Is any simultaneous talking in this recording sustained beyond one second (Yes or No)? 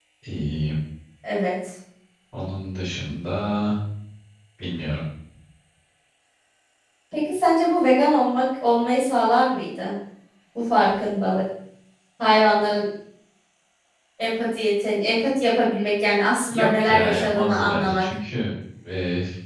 Yes